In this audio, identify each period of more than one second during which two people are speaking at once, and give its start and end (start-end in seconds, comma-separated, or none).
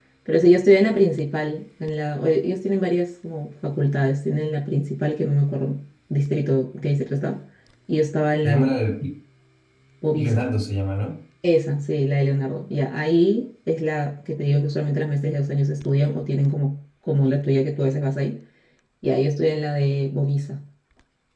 none